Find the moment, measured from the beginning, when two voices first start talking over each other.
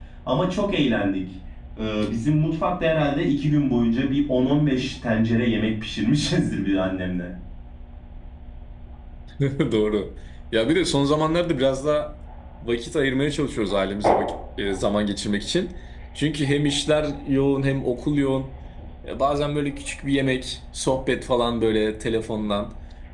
none

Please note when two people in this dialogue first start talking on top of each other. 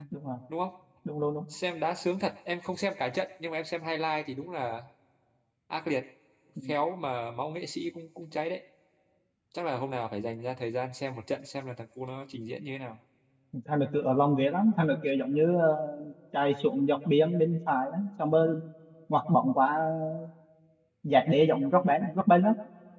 none

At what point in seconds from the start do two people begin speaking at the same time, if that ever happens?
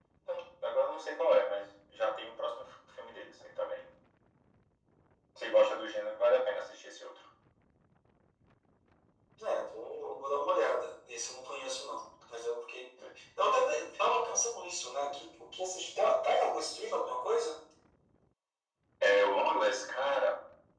none

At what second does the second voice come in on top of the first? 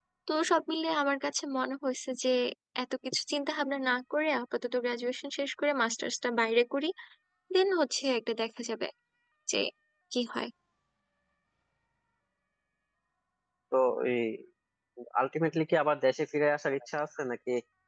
none

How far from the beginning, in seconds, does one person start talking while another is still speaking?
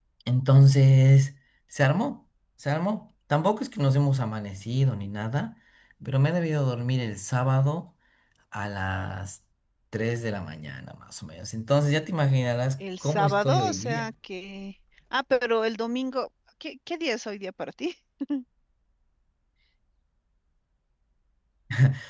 12.8 s

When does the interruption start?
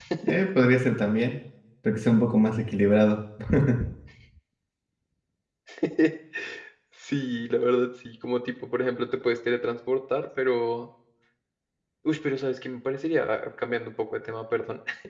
none

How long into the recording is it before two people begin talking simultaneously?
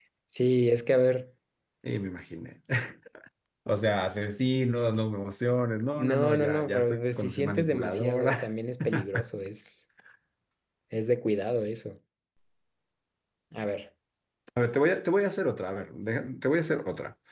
6.0 s

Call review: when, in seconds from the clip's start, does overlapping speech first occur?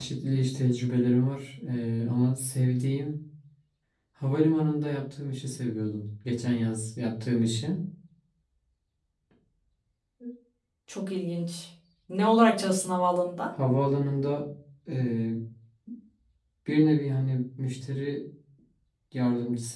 none

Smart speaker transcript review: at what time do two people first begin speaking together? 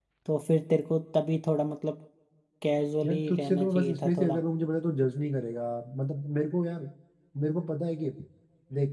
3.0 s

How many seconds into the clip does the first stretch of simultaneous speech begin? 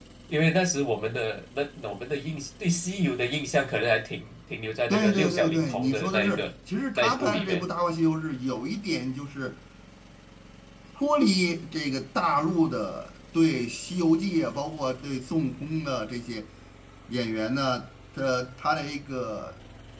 4.9 s

